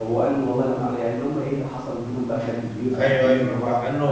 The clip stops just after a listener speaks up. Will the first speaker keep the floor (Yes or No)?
No